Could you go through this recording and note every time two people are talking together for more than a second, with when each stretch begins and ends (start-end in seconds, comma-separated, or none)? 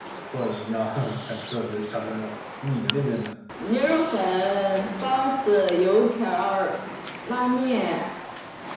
none